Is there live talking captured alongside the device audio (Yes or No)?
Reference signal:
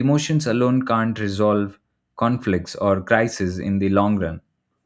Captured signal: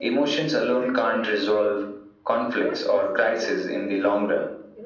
Yes